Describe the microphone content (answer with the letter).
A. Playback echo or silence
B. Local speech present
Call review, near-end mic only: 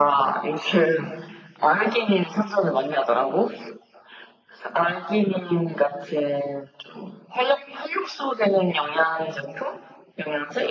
A